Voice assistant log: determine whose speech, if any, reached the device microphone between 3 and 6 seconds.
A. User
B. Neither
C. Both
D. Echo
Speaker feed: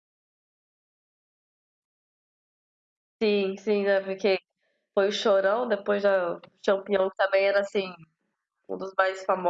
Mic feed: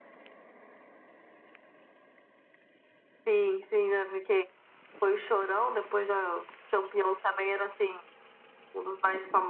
D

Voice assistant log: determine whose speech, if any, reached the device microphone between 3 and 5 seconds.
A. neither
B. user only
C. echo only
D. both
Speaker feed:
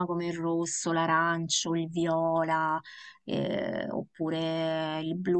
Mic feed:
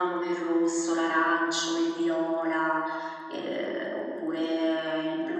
C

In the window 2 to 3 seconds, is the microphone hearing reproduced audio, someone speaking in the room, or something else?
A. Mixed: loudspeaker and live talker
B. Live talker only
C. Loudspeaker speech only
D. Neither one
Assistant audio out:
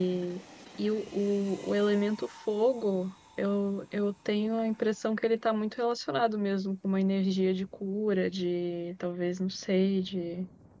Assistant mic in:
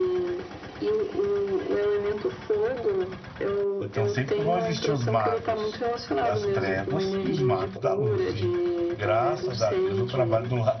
C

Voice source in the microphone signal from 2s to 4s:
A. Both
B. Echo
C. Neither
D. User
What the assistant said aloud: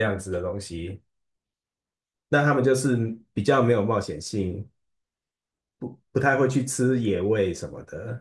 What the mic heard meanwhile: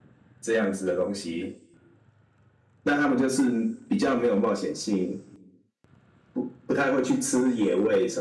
B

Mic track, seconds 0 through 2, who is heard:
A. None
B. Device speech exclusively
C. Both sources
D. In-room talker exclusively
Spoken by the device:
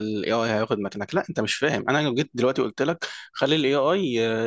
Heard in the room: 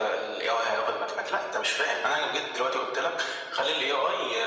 B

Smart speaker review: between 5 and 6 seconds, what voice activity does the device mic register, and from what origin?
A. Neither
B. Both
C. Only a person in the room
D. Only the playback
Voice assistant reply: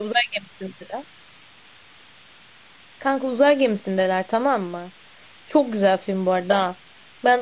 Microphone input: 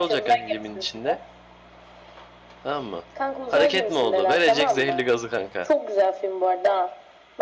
B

